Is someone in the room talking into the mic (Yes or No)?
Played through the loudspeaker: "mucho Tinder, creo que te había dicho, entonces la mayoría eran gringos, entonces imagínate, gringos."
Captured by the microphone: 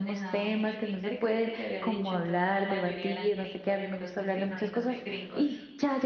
Yes